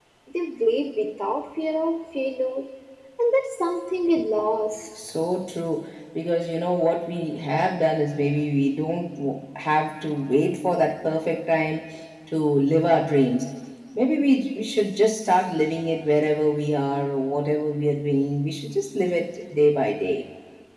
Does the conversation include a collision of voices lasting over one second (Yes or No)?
No